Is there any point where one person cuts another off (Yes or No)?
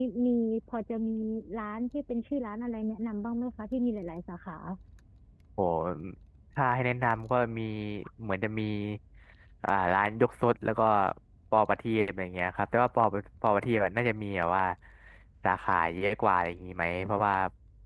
No